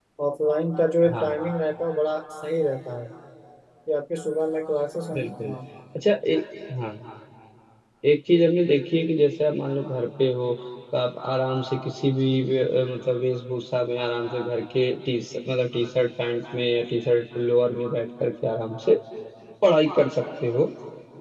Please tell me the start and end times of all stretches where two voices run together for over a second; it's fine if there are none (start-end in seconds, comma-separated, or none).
none